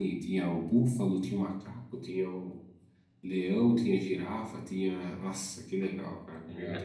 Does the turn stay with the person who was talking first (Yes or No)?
No